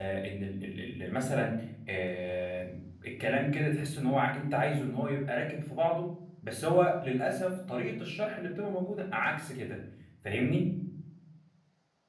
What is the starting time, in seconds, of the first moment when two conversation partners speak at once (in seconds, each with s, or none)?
none